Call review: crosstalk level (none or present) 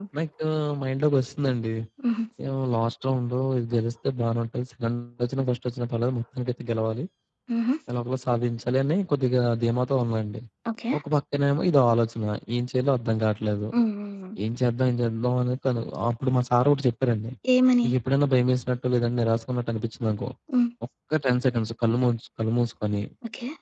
none